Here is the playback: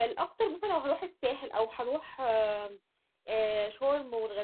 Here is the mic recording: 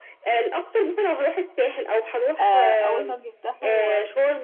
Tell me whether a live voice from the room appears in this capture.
Yes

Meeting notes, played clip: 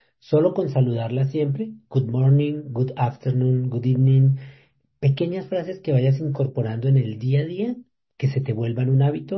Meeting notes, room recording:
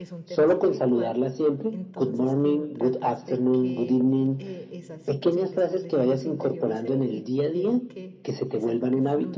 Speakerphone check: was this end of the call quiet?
No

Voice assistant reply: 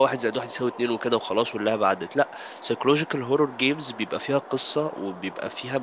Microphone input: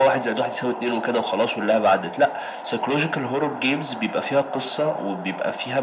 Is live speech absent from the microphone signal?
Yes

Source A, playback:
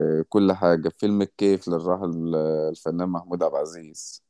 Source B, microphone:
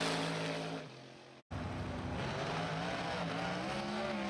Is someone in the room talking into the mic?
No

